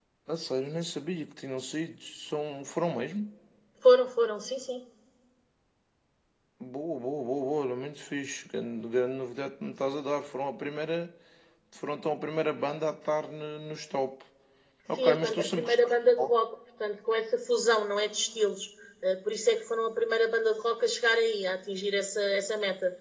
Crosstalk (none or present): present